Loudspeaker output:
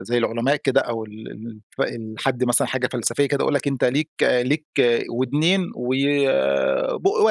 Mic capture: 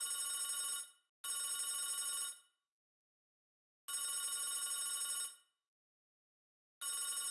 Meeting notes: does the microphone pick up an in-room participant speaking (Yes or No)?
No